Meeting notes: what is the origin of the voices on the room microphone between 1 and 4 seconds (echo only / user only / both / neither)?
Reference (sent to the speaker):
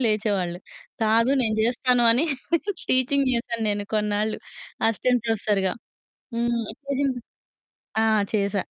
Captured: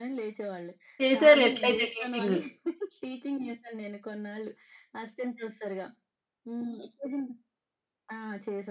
both